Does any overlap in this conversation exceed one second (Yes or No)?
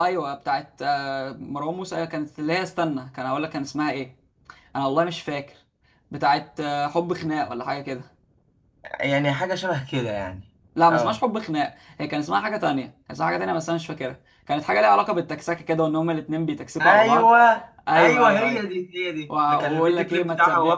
Yes